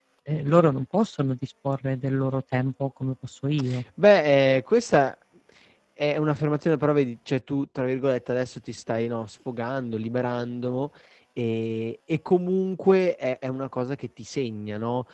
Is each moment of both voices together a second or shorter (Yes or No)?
Yes